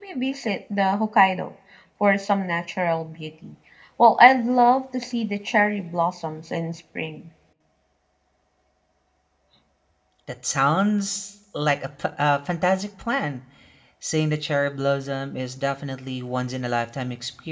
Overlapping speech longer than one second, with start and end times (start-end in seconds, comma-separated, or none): none